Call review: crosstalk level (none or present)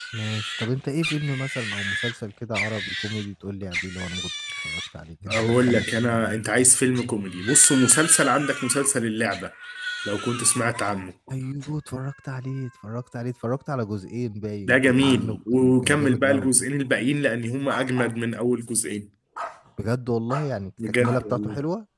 present